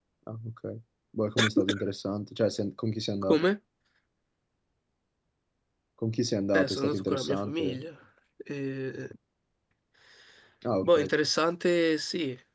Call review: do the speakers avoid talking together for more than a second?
No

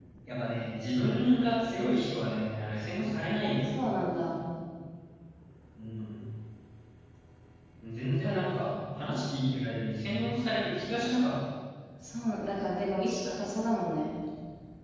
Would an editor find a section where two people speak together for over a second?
No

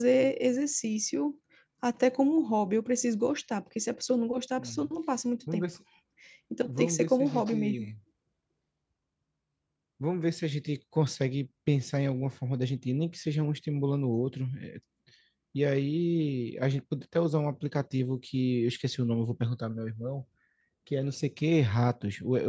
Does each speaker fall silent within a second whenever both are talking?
No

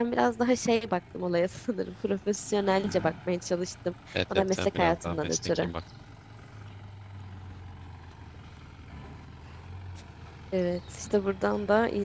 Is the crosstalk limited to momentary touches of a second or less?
No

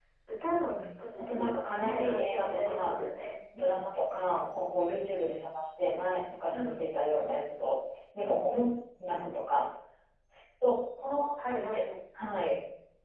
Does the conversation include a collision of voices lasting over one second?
Yes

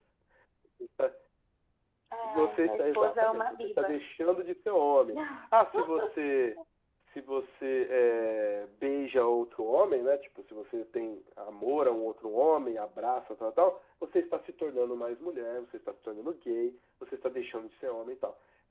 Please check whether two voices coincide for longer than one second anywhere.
Yes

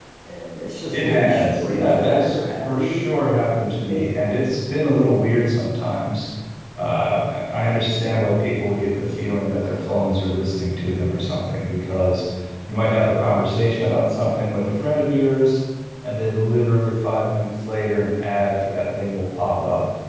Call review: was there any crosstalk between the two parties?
Yes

